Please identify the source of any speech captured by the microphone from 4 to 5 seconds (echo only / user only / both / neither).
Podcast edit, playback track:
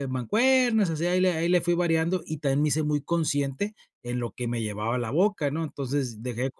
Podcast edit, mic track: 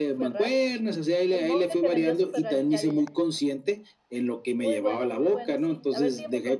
both